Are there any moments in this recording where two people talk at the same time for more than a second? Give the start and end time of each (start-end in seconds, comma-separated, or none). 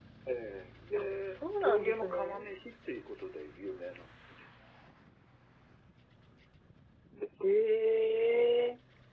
1.0-2.4